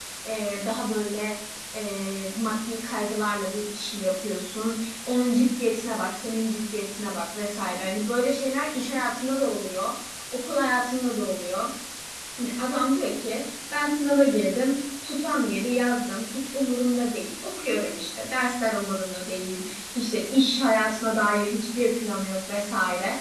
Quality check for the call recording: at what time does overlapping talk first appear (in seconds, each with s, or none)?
none